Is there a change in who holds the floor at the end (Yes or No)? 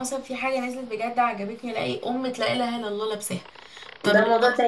Yes